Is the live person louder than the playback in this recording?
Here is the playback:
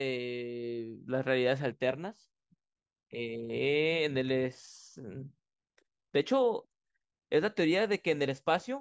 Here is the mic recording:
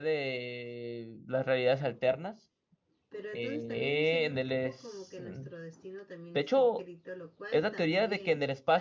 No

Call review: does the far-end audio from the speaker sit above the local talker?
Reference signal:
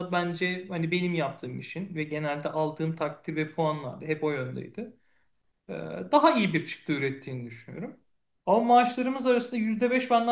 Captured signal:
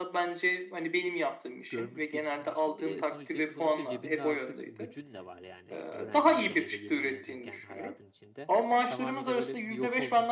Yes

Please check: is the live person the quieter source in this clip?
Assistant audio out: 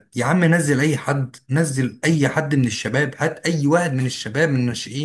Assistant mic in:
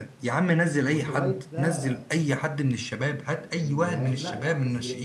Yes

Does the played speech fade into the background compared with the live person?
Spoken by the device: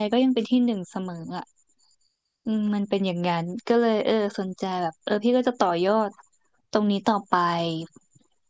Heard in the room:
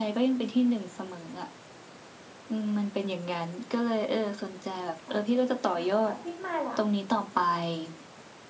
No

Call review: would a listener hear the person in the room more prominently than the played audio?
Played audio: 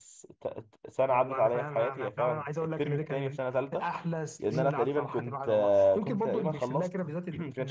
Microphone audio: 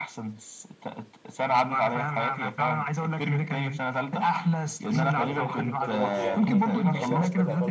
No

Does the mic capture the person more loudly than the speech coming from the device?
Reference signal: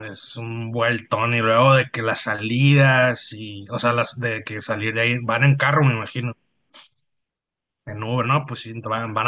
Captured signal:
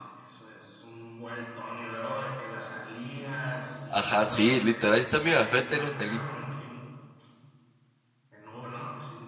Yes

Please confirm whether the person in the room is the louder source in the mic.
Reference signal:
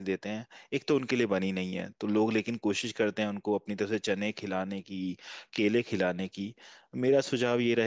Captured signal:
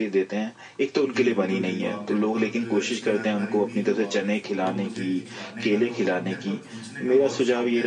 No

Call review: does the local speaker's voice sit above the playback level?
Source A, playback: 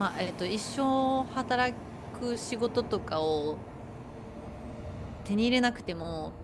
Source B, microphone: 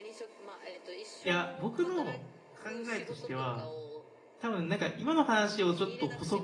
Yes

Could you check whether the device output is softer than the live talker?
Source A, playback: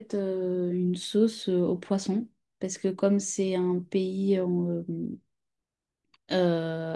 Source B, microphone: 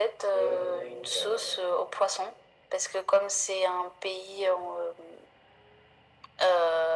No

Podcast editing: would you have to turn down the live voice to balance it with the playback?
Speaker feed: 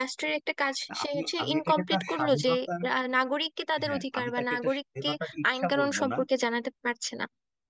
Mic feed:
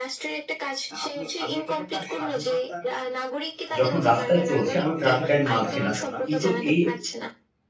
Yes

